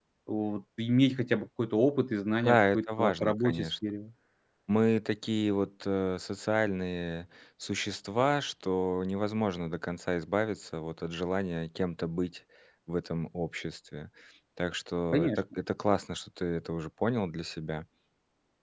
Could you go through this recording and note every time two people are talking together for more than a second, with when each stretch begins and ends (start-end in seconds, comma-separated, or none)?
2.4-3.7